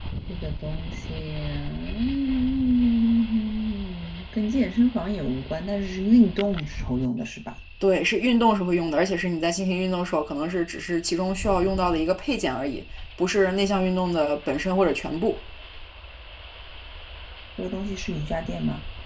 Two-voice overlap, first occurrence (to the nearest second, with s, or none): none